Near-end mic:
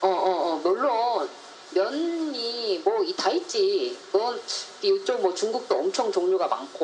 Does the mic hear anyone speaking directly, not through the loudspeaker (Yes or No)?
No